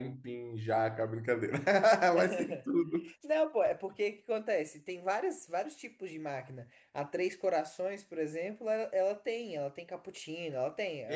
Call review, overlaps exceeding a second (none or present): none